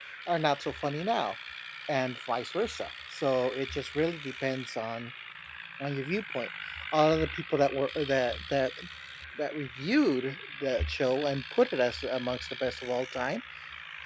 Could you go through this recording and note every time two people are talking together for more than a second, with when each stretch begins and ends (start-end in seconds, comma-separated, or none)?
none